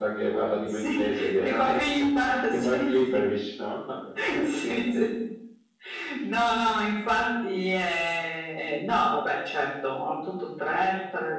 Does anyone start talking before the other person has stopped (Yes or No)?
Yes